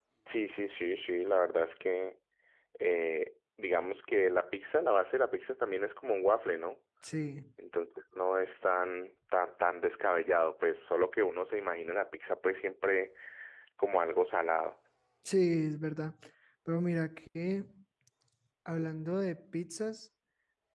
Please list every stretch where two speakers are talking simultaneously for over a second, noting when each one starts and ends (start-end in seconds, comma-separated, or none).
none